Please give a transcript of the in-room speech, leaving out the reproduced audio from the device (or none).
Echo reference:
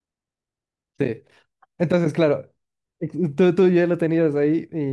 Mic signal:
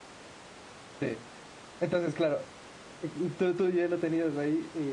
none